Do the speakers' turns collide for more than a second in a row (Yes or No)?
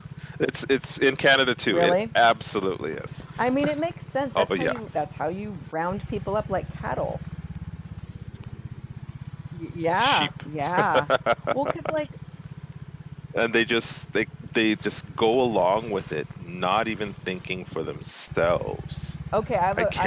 No